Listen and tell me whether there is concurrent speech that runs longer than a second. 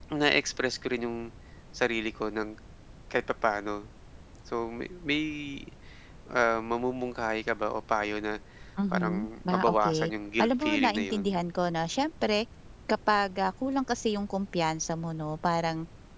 Yes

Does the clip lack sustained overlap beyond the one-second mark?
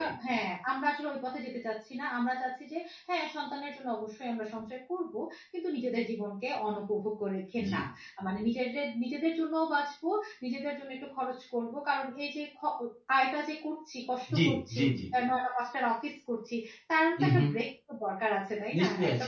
Yes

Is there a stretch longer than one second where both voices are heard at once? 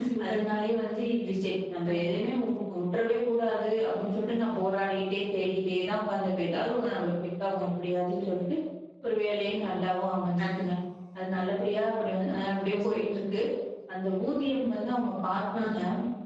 No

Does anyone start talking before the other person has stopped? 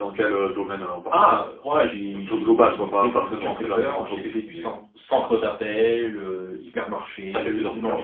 Yes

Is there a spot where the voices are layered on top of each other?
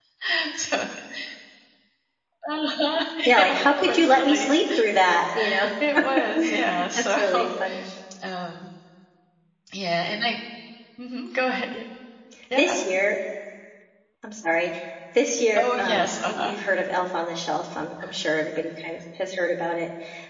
Yes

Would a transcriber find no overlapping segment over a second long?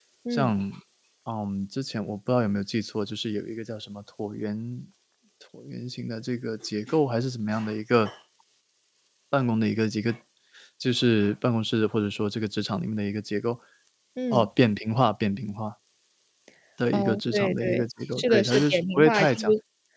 No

